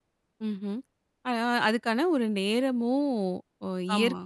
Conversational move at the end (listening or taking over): listening